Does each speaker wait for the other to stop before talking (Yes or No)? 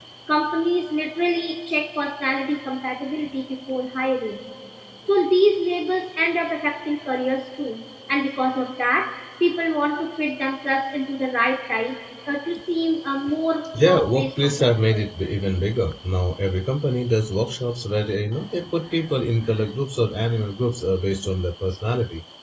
No